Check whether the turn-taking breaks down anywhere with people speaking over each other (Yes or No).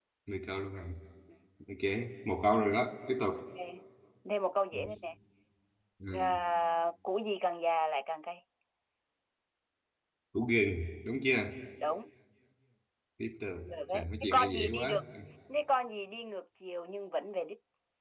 Yes